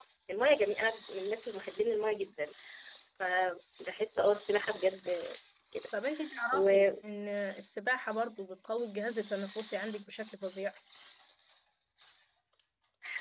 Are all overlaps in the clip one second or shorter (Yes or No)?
Yes